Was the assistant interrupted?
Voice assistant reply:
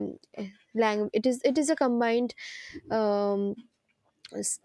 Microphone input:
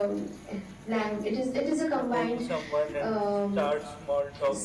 Yes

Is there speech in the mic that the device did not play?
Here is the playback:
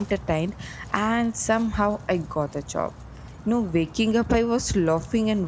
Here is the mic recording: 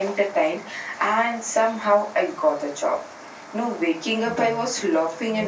Yes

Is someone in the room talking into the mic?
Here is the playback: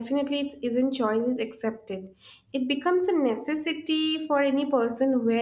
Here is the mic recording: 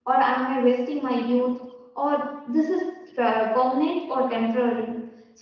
Yes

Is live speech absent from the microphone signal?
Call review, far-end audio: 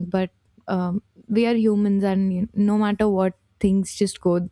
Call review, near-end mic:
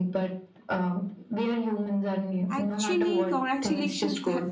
No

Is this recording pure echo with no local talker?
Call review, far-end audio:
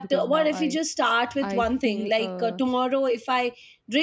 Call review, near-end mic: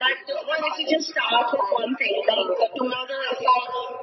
Yes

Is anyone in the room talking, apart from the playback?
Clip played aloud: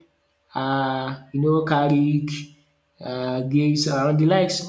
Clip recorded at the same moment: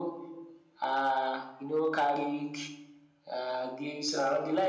No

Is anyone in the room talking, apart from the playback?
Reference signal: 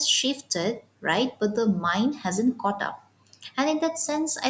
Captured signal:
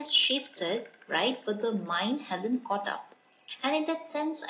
No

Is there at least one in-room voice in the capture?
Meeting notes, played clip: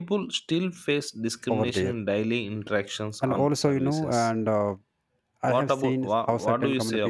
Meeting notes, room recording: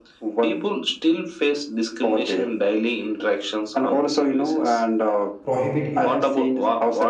Yes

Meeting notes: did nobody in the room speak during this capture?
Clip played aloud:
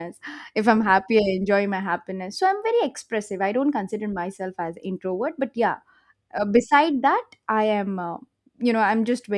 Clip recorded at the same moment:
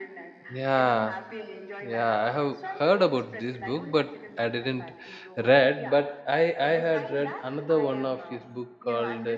No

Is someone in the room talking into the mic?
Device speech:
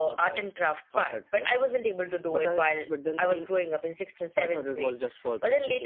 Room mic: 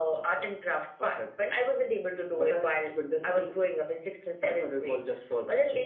No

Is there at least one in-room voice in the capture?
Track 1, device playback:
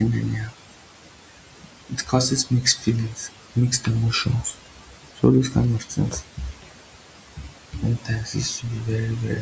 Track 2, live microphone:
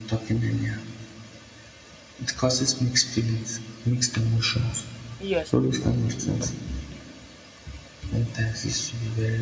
Yes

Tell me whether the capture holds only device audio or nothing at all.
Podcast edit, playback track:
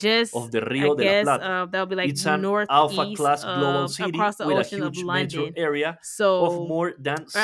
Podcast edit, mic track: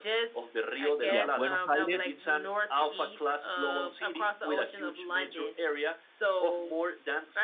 No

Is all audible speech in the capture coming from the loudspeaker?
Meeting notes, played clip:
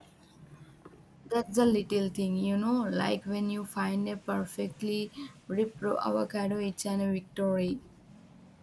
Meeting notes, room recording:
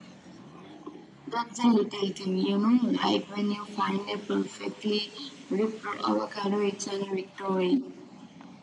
Yes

